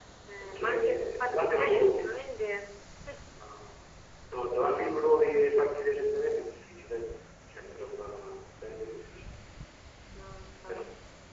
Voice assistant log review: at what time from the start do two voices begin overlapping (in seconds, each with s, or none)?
0.6 s